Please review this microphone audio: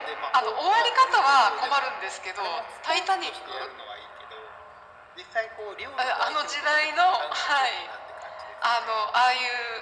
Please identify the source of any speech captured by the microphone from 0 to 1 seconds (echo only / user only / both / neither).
echo only